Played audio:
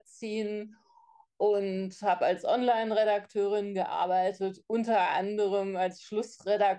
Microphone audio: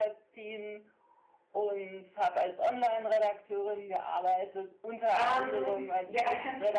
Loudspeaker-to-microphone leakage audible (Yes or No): Yes